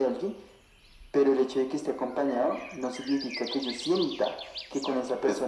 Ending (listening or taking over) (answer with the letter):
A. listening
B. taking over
A